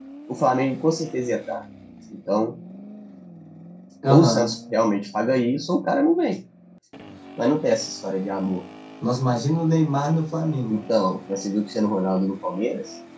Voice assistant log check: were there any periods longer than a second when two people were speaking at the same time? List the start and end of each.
none

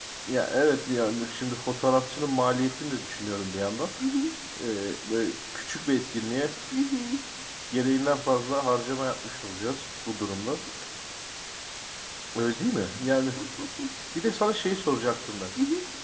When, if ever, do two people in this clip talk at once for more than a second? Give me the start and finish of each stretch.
none

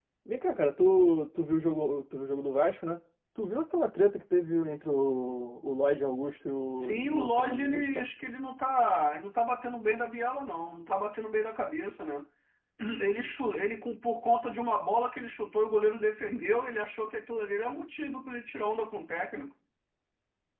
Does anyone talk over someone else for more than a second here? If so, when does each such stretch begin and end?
6.8-8.1

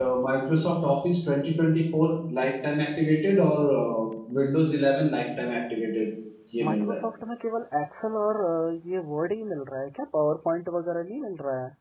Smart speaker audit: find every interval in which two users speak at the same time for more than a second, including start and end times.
none

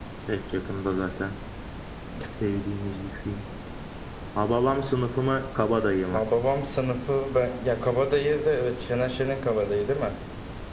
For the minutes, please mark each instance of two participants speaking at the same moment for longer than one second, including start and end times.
none

